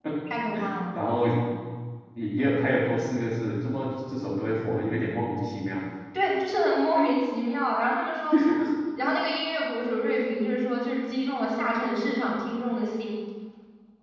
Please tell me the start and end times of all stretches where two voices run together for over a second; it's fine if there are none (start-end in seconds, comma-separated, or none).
none